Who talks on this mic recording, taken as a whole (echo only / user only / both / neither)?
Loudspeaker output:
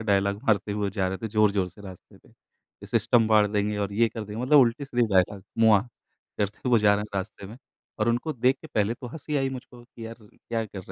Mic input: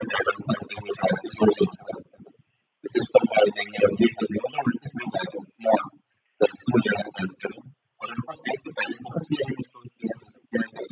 echo only